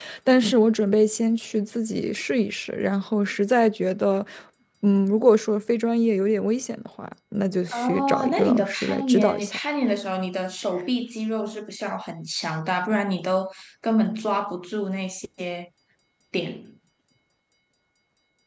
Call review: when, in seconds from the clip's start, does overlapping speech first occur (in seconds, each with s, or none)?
7.7 s